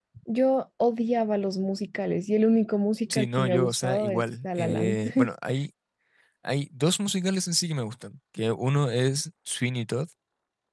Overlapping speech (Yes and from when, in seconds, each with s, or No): Yes, from 3.1 s